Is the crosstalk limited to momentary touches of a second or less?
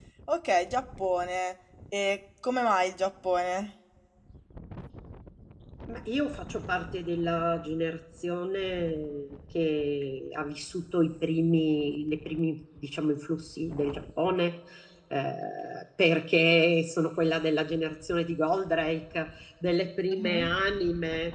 Yes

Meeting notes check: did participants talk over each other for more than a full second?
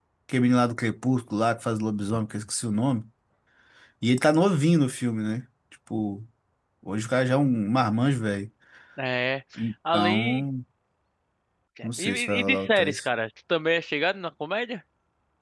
Yes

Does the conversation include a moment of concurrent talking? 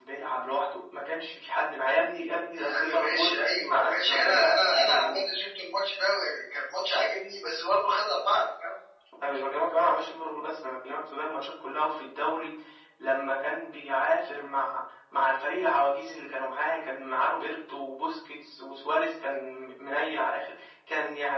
Yes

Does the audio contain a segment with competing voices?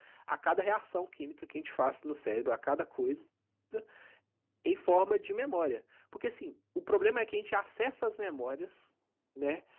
No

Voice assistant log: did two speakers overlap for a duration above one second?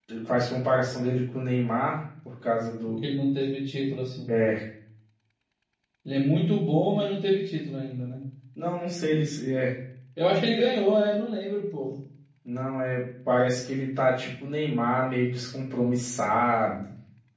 No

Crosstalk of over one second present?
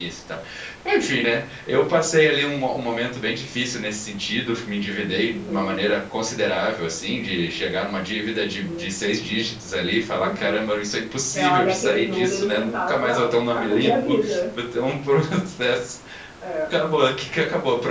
Yes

